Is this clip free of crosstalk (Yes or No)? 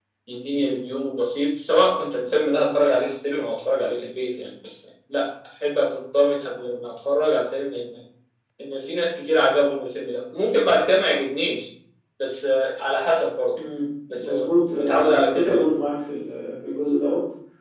No